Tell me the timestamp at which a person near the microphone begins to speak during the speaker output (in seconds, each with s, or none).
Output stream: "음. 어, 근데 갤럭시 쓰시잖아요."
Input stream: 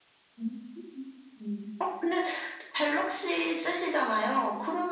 none